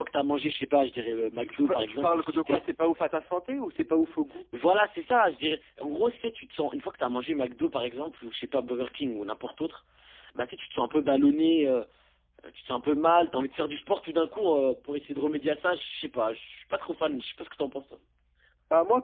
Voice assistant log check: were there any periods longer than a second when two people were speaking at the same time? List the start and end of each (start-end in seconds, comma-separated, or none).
1.1-2.6